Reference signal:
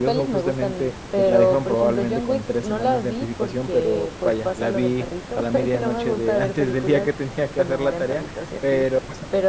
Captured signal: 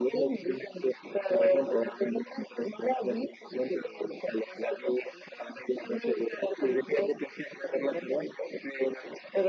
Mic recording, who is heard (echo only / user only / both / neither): echo only